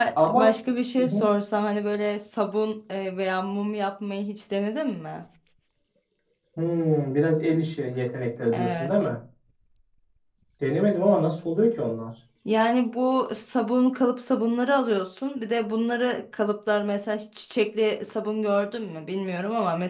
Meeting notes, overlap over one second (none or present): none